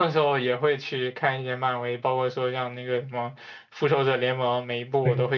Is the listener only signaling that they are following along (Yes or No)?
Yes